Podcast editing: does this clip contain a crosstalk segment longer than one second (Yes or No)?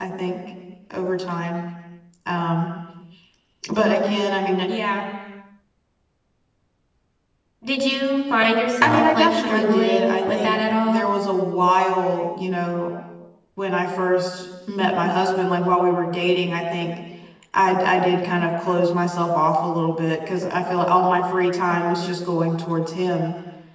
Yes